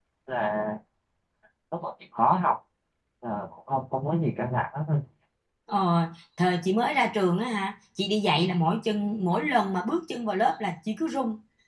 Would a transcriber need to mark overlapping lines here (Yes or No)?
No